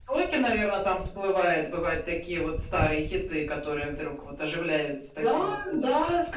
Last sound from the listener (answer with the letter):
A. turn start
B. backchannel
A